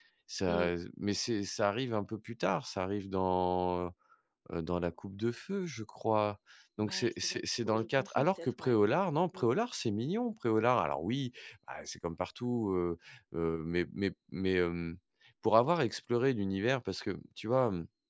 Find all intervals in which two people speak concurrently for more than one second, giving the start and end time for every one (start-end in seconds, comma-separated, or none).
6.8-8.7